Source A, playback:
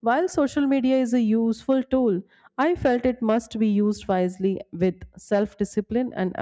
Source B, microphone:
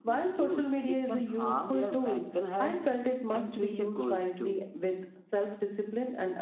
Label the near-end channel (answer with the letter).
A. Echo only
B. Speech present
B